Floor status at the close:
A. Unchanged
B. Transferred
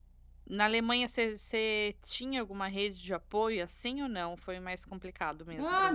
B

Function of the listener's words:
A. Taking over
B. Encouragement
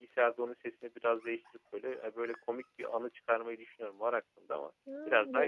A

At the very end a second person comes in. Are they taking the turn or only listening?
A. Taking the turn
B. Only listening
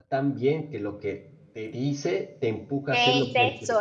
A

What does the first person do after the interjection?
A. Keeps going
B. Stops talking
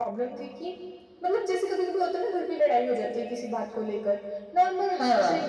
A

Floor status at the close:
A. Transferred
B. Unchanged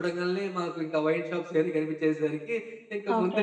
B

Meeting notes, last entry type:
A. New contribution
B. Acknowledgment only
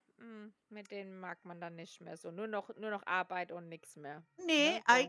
A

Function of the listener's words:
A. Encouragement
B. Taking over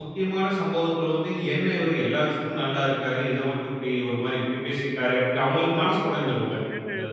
B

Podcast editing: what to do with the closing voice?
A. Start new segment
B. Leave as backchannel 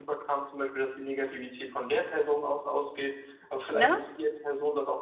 B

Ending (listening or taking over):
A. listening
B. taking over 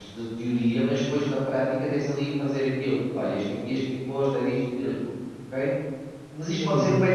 A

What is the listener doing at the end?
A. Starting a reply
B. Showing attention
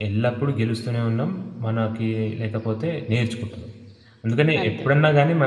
B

